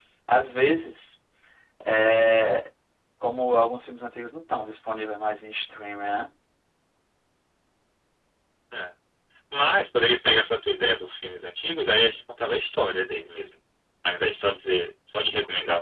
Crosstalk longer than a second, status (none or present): none